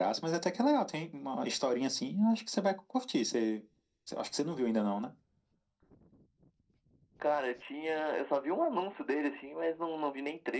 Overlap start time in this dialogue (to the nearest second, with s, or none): none